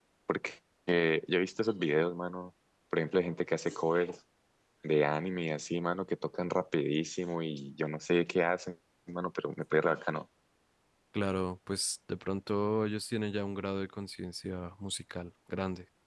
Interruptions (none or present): none